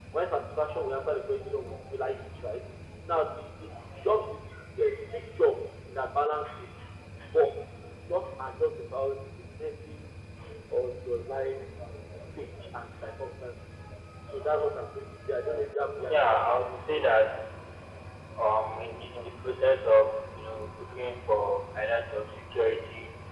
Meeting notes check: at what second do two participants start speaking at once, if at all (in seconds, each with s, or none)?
16.0 s